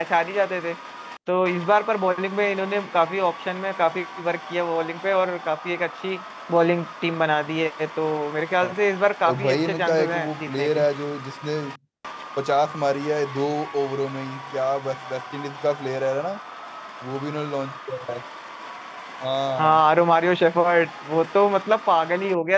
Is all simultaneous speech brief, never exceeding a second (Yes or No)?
No